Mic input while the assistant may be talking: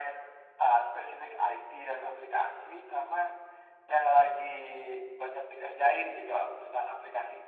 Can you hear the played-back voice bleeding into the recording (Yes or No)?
Yes